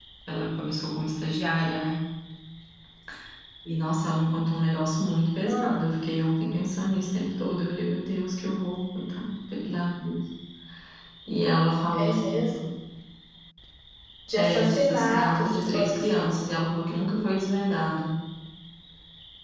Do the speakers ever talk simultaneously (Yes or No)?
Yes